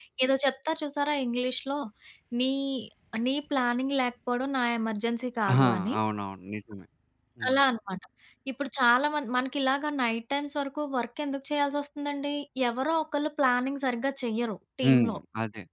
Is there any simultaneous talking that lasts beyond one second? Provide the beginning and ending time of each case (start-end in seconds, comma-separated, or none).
none